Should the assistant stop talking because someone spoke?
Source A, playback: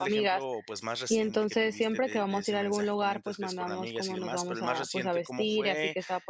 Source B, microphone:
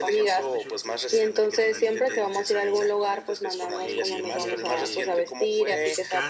Yes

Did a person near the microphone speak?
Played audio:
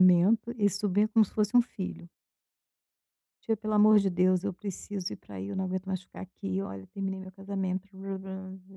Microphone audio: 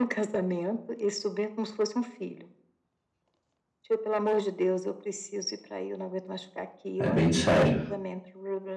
Yes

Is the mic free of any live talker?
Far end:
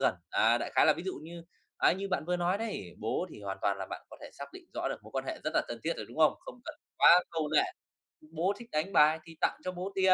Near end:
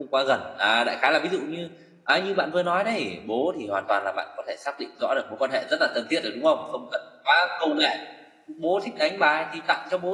Yes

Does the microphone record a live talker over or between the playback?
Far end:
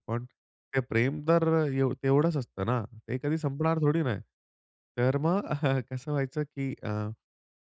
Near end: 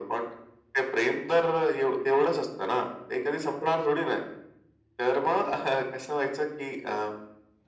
No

